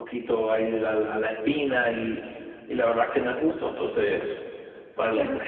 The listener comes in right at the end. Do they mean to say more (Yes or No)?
No